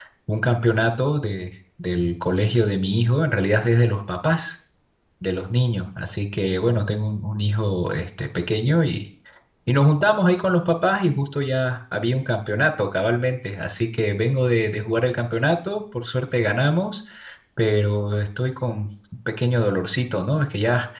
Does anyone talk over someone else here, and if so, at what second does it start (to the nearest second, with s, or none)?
none